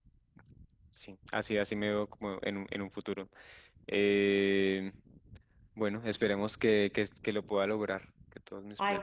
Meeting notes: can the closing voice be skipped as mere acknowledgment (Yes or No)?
No